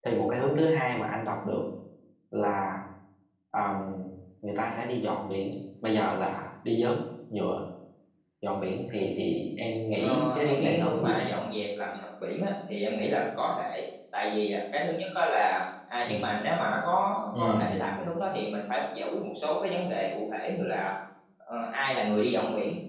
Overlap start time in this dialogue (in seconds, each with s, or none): 10.0 s